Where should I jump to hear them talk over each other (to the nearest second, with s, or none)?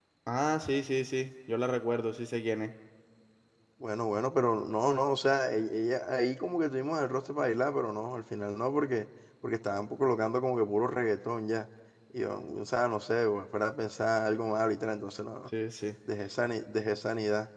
none